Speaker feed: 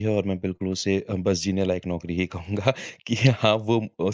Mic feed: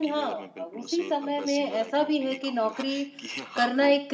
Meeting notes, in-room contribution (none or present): present